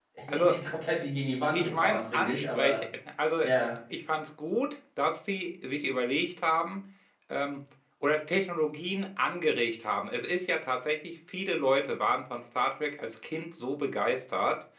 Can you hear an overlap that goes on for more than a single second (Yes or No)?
Yes